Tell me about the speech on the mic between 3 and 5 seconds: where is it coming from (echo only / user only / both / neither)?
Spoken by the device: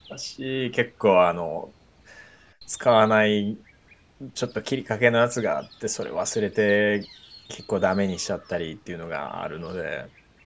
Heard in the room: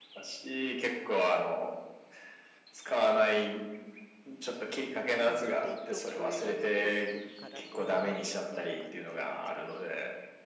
echo only